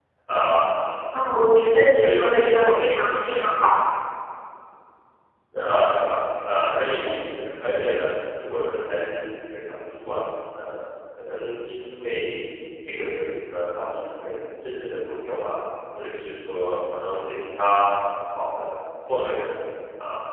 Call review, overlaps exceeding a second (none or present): present